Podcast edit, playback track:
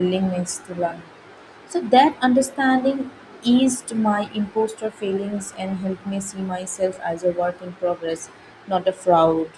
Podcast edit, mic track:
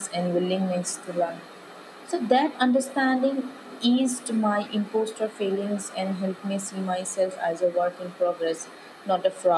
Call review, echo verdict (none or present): present